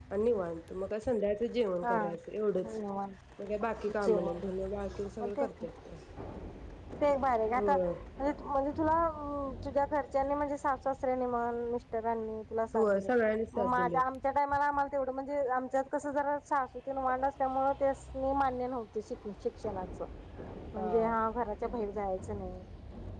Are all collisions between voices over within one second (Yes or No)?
Yes